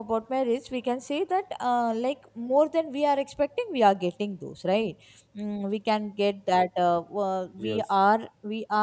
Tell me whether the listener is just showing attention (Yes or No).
Yes